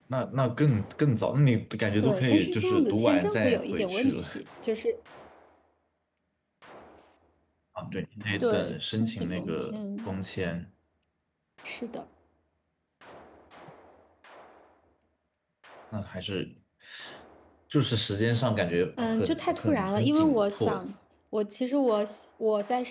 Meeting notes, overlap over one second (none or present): present